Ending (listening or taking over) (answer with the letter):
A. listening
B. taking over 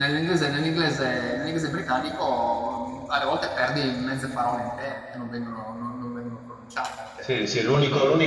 B